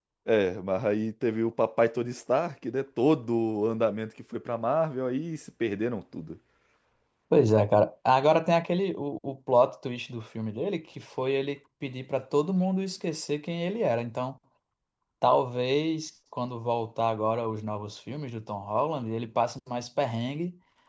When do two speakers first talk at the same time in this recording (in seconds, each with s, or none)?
none